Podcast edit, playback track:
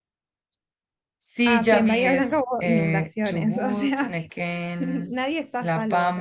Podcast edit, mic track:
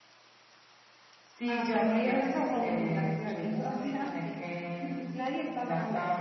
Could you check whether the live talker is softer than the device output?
Yes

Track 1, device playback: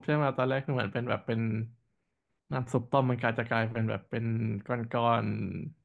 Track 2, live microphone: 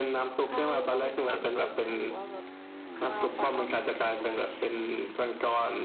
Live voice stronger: No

